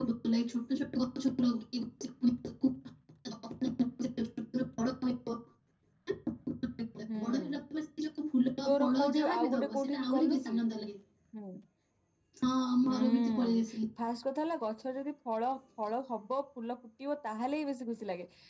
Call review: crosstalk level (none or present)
present